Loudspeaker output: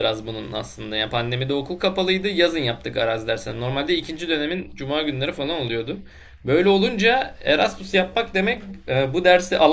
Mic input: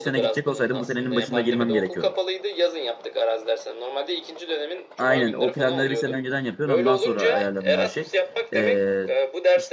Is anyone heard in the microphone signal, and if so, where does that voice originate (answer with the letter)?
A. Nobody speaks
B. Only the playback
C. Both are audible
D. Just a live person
C